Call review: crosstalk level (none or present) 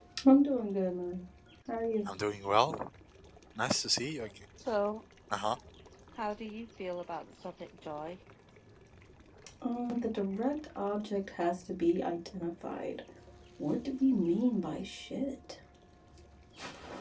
none